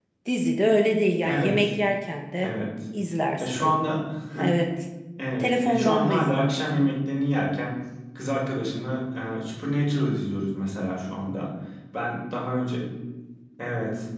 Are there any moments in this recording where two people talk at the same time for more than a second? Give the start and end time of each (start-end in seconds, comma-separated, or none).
5.4-6.9